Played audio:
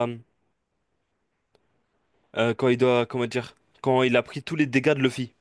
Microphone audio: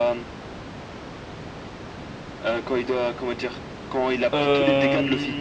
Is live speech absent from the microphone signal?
No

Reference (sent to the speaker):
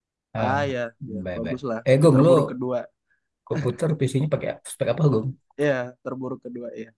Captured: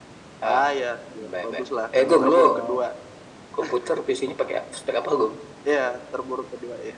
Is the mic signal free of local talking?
No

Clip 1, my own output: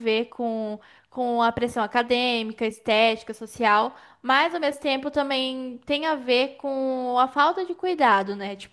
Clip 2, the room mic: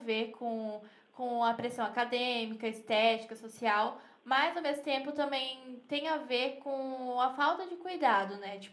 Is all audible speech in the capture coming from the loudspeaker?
Yes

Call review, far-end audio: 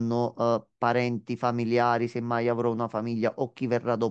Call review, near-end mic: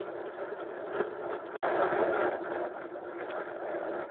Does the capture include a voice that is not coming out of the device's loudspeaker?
No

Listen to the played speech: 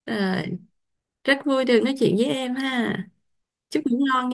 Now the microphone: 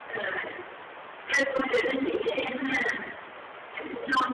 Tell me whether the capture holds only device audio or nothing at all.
Yes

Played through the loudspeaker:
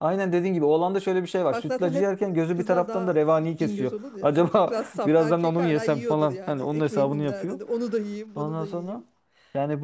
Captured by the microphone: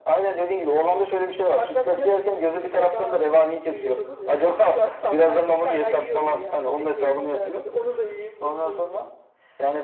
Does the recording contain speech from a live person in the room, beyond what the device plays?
No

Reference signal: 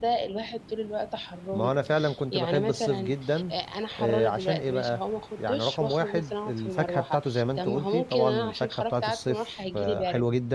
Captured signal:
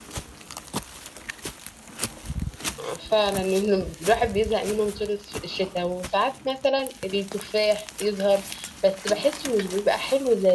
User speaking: Yes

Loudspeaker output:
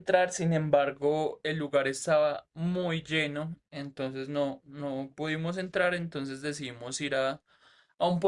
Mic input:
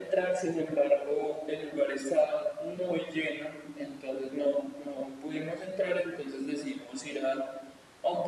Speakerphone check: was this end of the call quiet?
Yes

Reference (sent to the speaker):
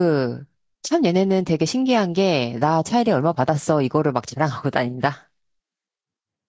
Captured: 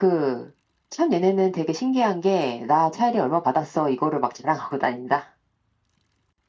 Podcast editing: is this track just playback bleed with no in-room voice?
Yes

